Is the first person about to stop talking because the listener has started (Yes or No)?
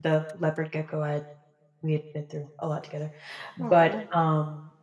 No